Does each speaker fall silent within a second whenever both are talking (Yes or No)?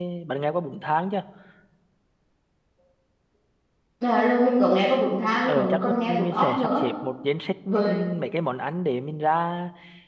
No